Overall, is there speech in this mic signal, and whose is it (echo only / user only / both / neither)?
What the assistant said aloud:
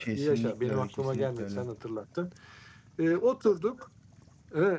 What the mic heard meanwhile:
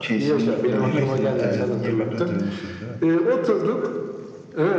both